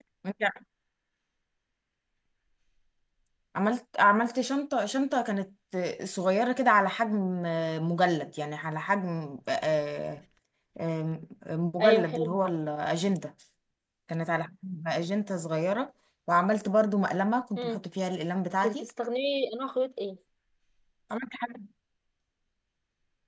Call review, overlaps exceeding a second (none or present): none